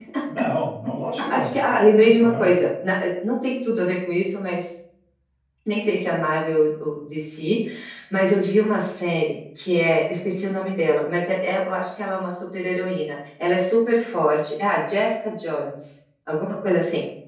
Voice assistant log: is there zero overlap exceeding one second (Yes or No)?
Yes